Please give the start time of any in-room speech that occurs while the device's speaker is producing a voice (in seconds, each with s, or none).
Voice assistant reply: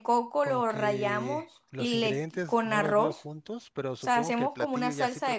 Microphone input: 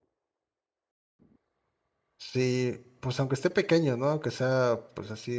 2.2 s